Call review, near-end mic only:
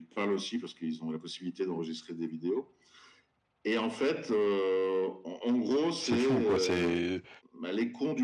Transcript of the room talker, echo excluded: C'est fou, quoi. C'est

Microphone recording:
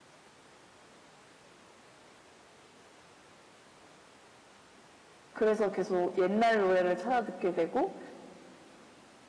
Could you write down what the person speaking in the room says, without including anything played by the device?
그래서 계속 옛날 노래를 찾아 듣게 되고,

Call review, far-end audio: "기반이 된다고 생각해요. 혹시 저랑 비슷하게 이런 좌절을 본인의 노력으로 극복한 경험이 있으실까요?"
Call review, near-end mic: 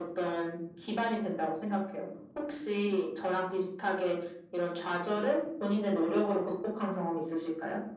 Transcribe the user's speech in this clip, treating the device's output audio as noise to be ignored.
none

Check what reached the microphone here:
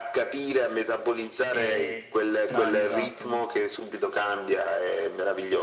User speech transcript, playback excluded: eh, strani, esatto. Comunque-

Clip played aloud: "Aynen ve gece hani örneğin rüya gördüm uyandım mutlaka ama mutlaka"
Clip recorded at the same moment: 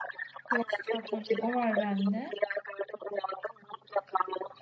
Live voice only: Klostrofobi o var bende.

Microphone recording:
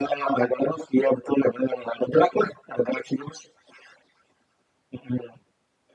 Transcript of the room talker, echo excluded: none

